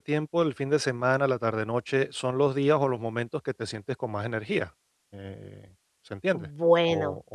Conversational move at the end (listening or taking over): taking over